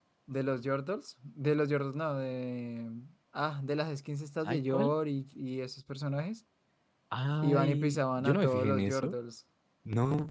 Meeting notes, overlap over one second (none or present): present